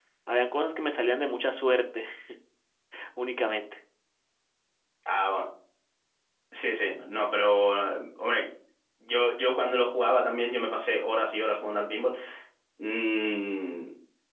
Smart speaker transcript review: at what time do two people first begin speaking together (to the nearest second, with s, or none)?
none